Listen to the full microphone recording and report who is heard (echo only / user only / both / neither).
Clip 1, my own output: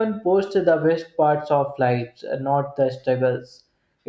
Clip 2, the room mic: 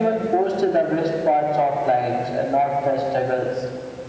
echo only